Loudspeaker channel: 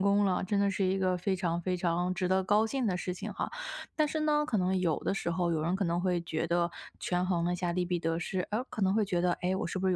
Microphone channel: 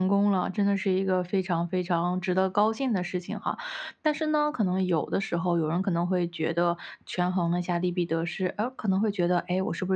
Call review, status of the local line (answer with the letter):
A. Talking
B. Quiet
B